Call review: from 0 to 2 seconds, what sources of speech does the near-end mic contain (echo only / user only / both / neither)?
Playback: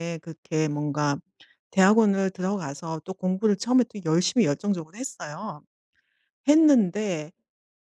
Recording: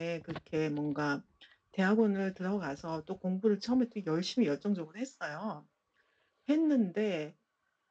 echo only